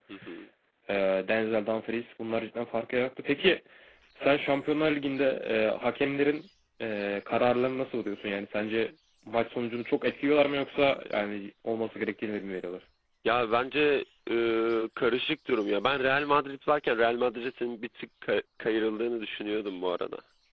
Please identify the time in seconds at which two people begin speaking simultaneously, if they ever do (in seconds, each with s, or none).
none